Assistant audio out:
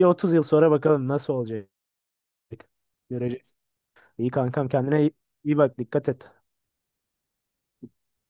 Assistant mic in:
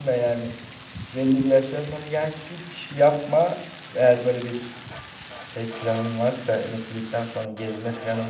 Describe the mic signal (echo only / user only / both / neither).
user only